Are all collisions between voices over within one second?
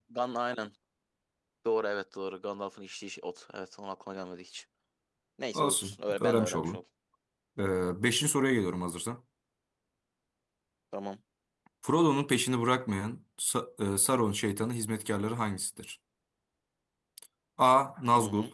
No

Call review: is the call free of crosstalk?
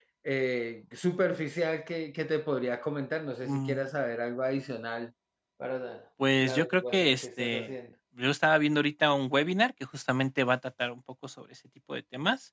No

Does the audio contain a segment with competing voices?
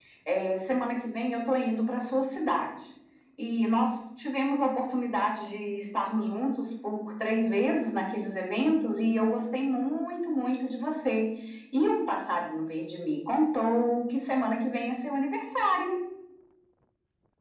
No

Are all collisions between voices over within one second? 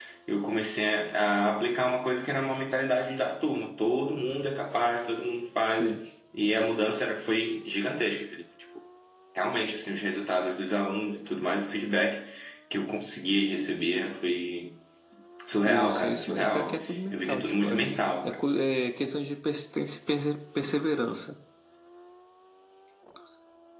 No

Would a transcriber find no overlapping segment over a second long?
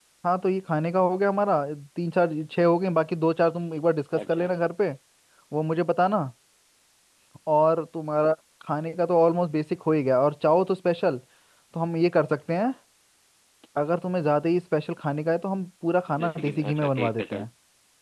No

